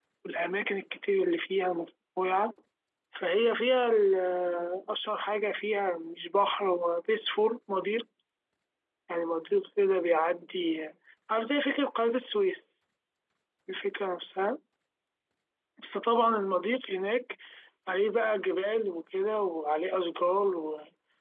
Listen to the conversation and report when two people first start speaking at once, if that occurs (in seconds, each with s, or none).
none